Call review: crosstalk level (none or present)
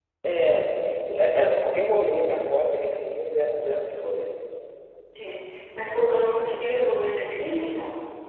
none